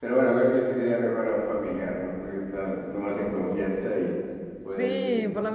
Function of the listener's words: taking over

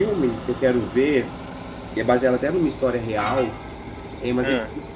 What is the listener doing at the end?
listening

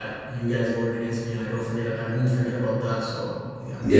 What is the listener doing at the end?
taking over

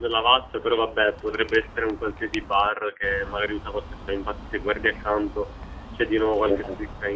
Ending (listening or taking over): listening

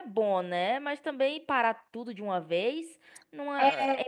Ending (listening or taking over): taking over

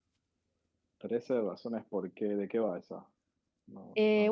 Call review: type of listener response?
taking over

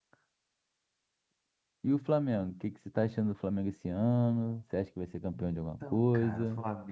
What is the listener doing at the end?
taking over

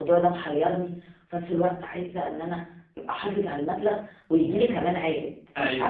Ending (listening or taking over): taking over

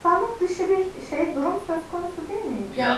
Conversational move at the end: listening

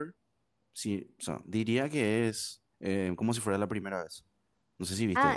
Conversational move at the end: taking over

